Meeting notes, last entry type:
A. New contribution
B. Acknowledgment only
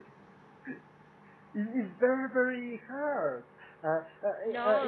B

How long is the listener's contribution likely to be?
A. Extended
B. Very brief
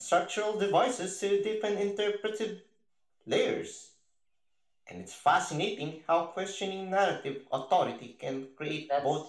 A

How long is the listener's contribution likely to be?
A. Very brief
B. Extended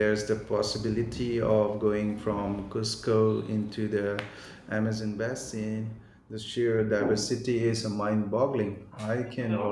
A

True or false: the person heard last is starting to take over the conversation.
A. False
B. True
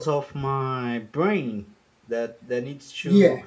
B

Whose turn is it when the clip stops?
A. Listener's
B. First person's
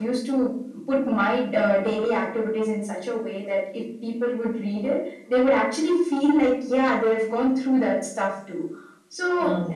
B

